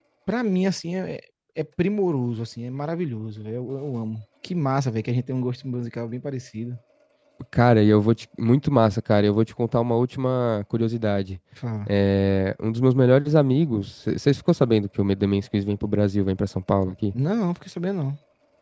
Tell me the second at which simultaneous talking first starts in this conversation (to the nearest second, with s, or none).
none